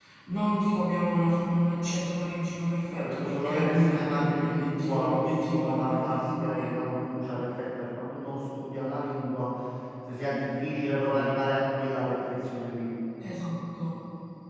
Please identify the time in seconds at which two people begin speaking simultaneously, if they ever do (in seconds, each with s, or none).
2.9 s